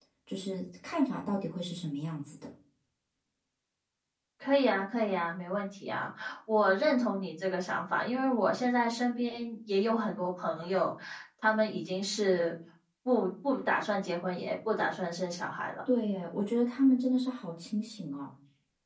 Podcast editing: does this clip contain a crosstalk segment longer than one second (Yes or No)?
No